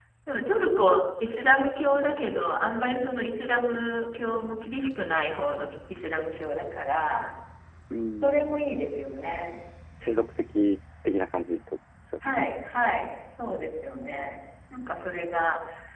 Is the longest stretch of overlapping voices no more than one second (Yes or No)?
Yes